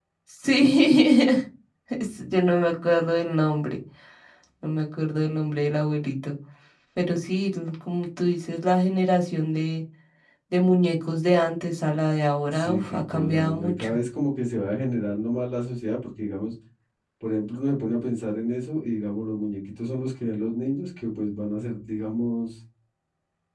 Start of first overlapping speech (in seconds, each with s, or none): 12.5 s